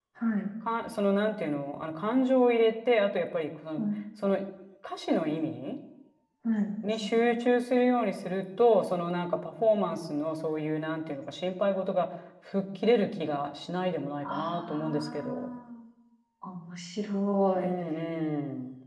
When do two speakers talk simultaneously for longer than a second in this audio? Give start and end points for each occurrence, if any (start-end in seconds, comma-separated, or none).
14.2-15.5